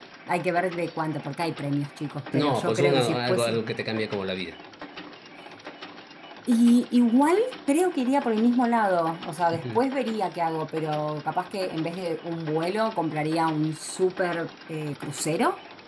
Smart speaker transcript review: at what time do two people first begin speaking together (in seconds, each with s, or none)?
2.3 s